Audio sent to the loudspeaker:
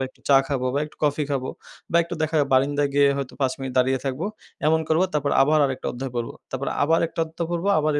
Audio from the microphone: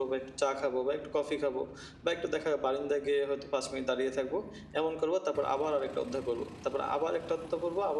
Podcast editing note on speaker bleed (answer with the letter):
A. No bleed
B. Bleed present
B